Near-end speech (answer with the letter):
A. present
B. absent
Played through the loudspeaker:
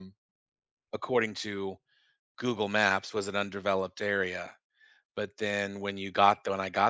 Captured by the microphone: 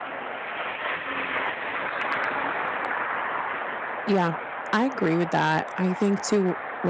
A